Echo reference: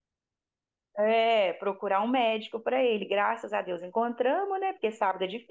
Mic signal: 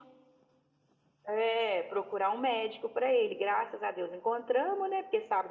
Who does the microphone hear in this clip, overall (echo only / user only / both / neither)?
echo only